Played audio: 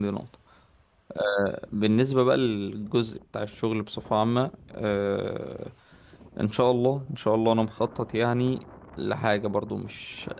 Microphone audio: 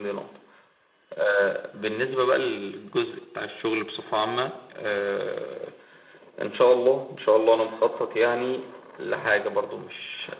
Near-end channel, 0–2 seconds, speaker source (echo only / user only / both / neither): echo only